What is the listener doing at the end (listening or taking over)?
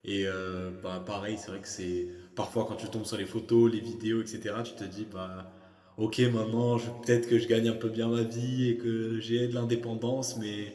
listening